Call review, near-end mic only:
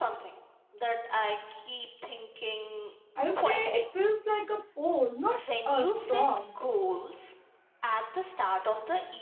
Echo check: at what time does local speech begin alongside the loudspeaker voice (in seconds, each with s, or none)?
3.1 s